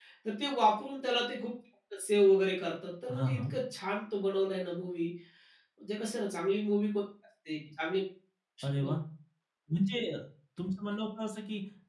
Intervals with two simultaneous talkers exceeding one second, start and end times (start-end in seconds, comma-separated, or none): none